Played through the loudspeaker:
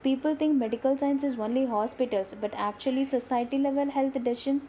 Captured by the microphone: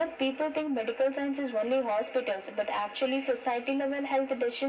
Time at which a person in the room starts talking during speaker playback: none

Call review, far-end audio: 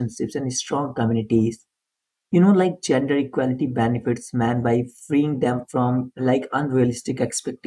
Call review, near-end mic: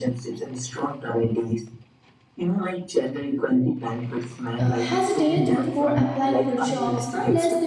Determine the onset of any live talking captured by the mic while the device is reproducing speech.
4.6 s

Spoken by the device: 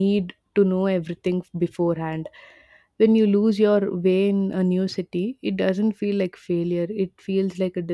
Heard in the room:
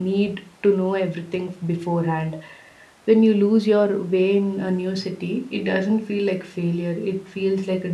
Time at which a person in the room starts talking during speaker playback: none

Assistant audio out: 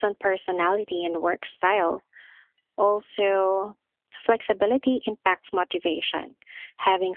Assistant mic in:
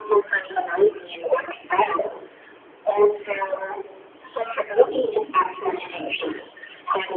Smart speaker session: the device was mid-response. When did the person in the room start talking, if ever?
none

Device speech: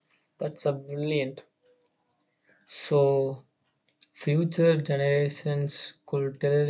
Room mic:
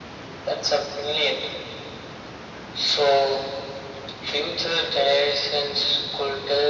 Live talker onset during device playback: none

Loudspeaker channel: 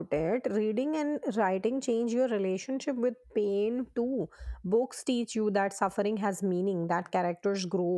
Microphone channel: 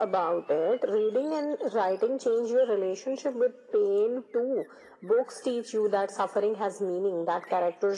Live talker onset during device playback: none

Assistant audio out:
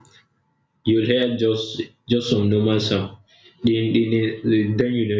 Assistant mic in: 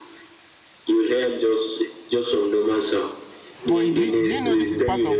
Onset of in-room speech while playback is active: 3.6 s

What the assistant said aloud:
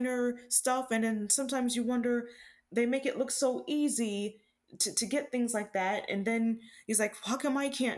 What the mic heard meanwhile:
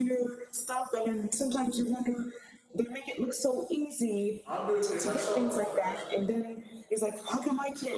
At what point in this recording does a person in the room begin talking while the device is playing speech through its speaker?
4.4 s

